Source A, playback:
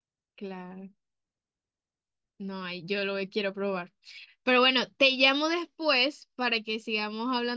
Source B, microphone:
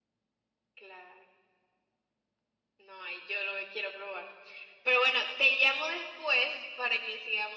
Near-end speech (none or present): none